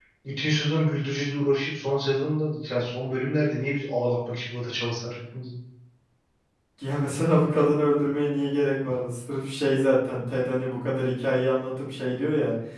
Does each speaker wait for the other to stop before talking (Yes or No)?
Yes